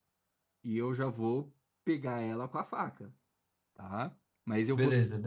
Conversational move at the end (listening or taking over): listening